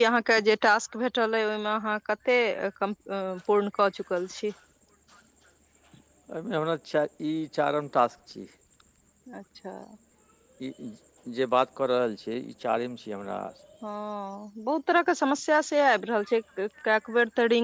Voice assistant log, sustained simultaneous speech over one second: none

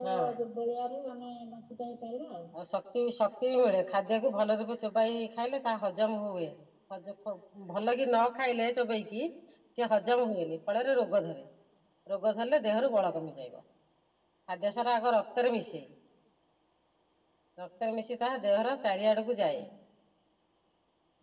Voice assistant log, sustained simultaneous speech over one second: none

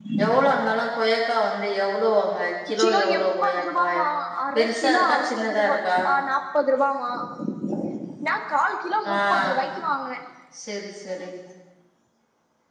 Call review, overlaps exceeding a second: present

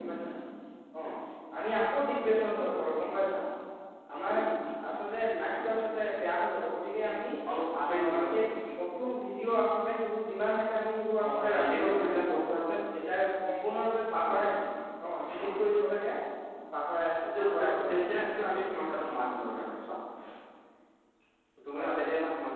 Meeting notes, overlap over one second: present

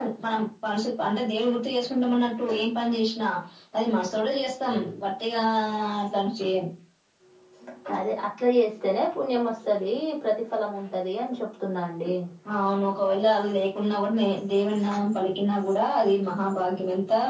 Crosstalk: none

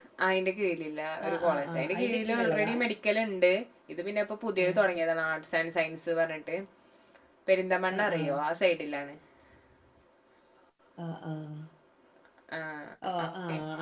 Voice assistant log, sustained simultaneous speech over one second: present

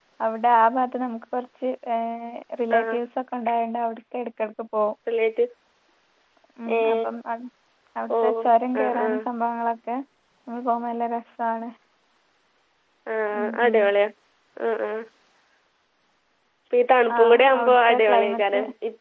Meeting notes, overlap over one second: present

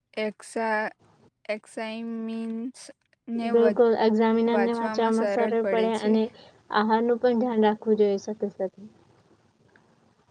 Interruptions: present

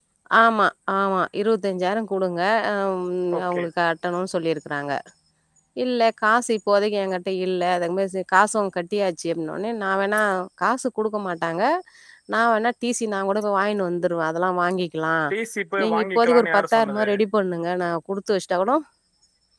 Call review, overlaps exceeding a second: present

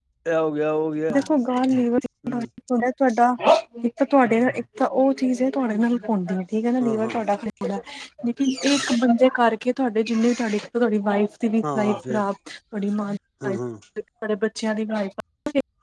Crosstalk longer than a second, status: none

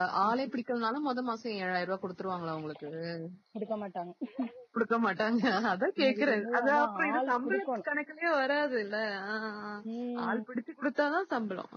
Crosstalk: present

